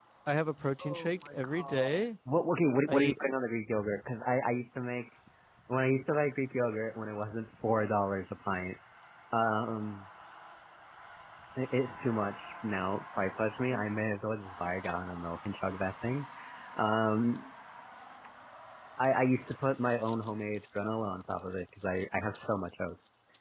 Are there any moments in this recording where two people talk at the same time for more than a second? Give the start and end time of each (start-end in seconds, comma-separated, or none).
0.8-2.1